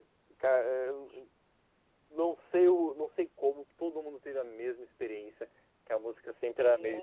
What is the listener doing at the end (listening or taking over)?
listening